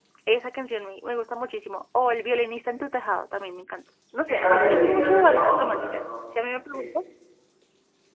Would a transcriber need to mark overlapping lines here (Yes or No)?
Yes